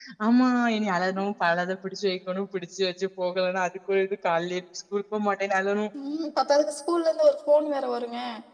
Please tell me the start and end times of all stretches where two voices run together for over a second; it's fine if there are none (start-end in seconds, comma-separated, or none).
none